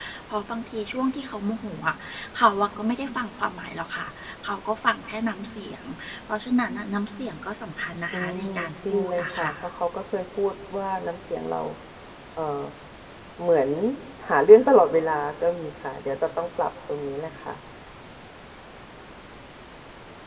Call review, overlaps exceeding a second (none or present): present